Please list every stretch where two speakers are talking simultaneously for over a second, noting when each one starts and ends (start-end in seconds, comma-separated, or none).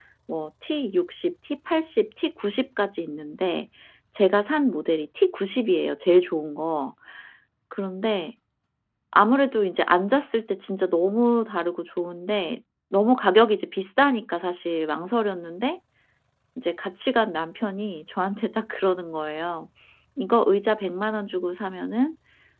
none